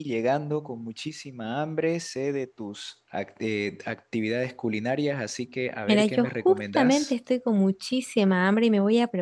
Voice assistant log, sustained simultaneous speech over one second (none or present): present